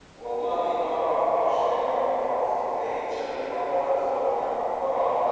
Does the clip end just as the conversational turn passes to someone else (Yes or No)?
Yes